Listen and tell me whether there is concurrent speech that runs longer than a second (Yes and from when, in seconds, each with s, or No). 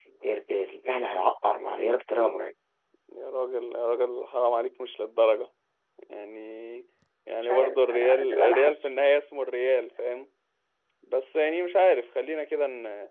Yes, from 7.4 s